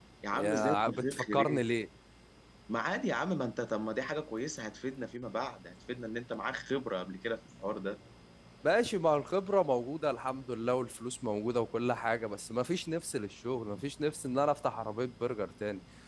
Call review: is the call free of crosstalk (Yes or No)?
No